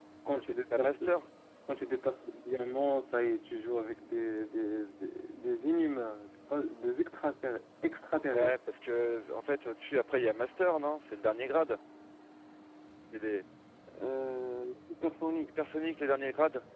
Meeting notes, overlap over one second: none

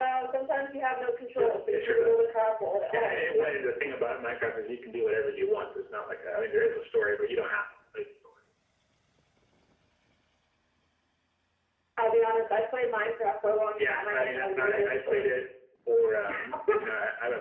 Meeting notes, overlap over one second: present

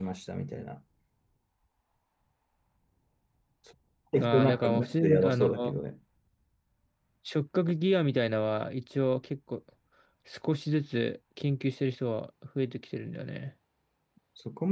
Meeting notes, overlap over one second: present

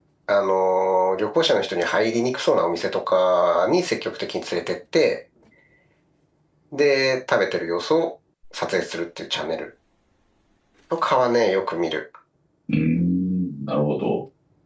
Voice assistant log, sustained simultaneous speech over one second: none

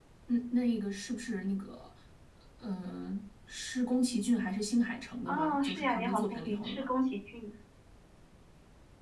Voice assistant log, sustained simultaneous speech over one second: present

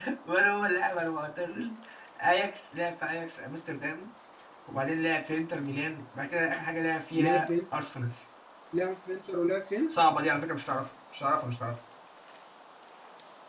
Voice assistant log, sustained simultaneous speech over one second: none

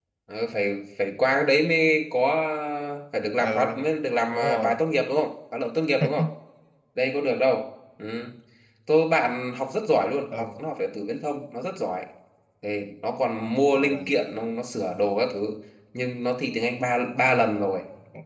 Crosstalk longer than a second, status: none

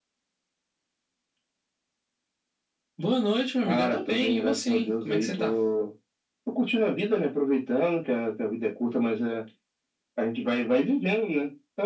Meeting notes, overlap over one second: present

